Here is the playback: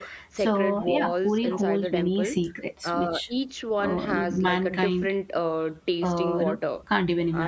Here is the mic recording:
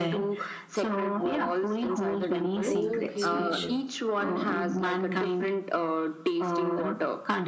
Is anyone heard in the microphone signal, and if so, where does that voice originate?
both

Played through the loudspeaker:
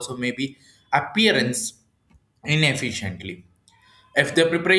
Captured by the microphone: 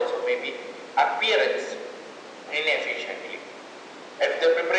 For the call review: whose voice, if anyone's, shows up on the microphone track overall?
echo only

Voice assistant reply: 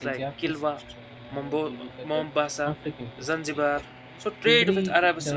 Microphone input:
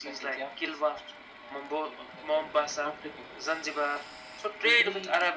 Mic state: echo only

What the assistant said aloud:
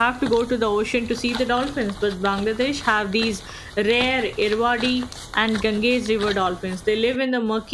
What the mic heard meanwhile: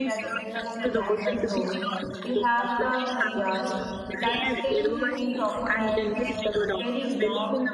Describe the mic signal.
both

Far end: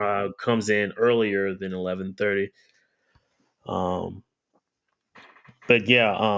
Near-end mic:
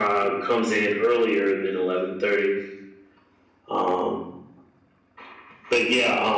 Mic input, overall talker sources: echo only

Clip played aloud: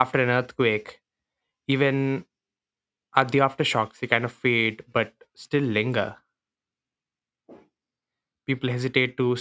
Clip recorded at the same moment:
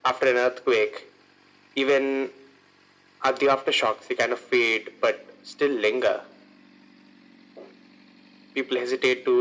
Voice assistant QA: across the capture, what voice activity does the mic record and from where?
echo only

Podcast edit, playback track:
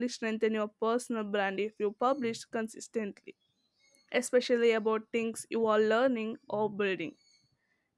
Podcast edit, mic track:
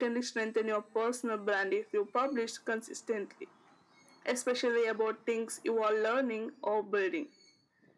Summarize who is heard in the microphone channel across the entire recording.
echo only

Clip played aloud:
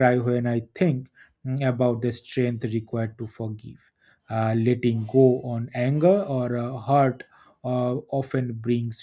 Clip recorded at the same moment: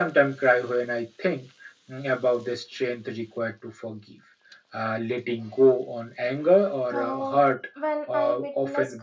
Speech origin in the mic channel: both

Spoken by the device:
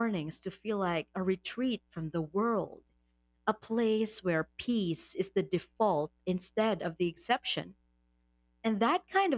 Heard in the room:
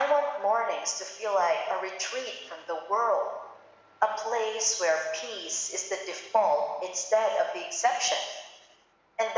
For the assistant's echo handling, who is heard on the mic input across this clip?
echo only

